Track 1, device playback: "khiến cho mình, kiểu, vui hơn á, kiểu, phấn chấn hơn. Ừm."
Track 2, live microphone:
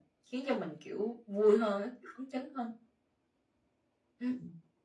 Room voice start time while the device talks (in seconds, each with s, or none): none